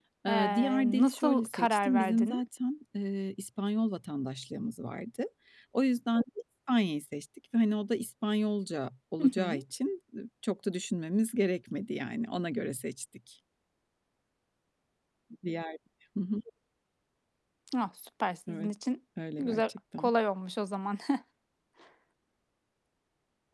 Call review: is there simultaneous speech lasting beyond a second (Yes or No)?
Yes